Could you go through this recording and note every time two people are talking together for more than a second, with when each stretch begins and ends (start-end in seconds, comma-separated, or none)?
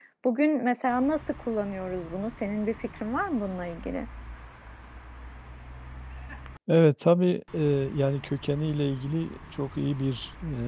none